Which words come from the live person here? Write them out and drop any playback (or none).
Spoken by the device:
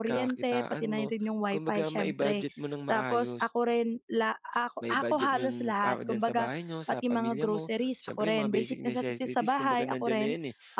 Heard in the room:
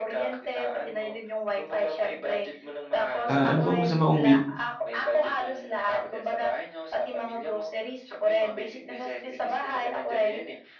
ah, ano bang masama kung bi